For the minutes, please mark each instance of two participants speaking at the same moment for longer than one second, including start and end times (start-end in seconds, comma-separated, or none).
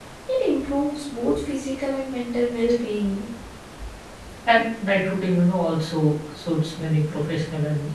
none